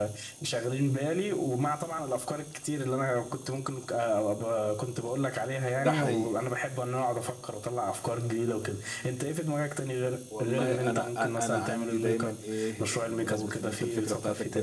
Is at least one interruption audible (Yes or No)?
Yes